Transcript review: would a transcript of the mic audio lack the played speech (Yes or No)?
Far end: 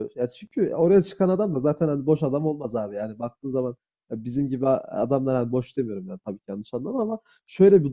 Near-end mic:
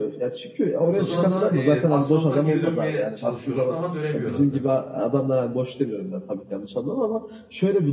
No